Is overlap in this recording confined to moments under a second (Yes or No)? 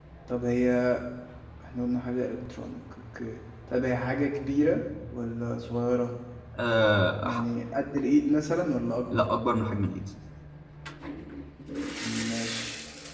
Yes